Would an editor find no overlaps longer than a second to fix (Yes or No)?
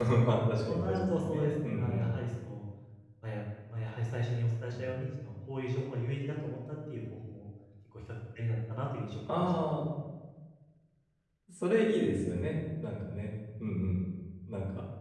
No